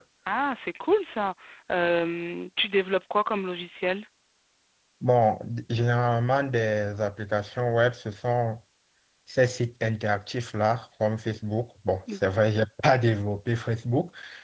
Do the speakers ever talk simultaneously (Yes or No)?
No